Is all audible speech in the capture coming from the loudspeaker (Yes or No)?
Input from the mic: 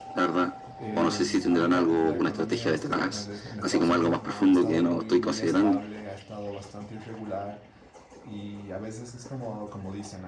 No